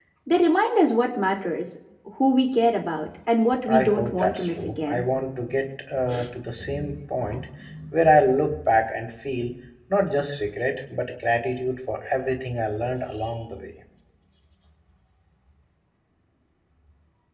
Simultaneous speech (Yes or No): Yes